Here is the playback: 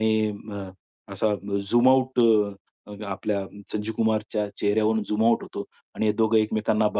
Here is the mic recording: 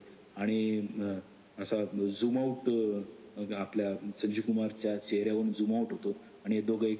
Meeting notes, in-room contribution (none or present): none